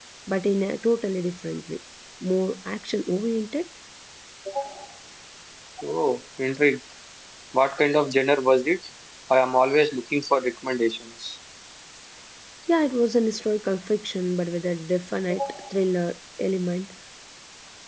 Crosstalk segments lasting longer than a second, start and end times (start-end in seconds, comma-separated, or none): none